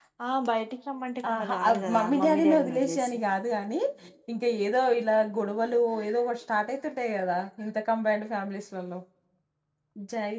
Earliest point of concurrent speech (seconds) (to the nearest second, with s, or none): 1 s